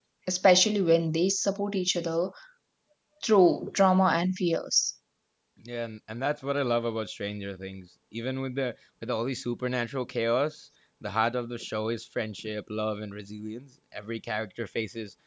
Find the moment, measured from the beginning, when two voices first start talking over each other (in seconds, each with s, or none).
none